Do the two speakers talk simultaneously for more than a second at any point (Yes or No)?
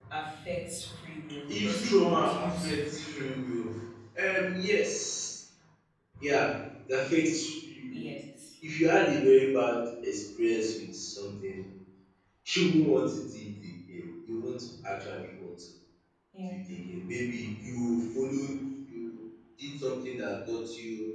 Yes